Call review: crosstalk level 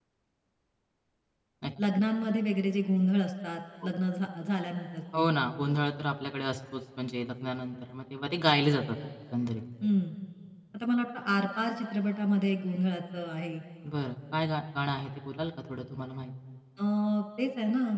none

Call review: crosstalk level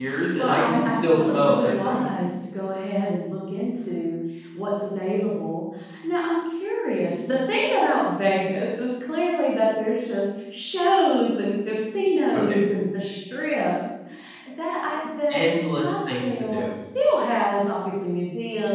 present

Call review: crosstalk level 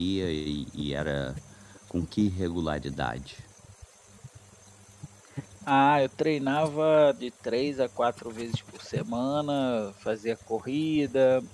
none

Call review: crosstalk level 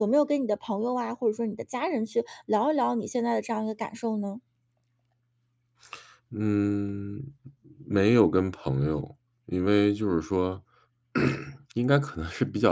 none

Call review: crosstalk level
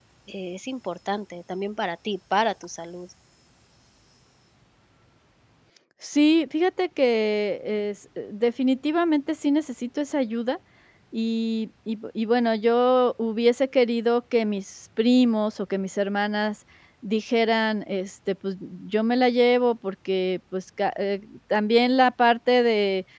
none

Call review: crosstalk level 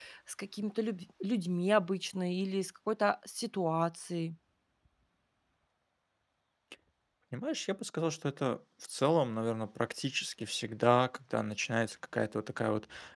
none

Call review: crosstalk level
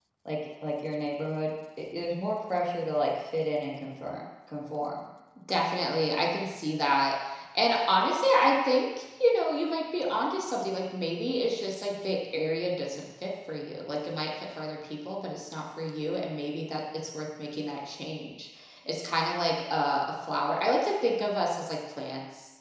none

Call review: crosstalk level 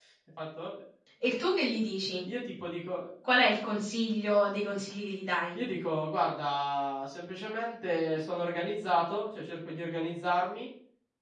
none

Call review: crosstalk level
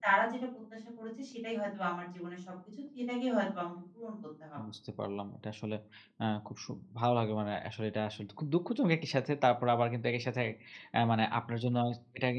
none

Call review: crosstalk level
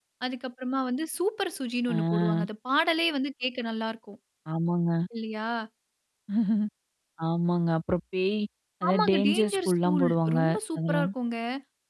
present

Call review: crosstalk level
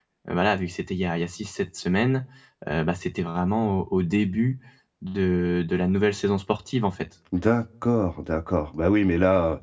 none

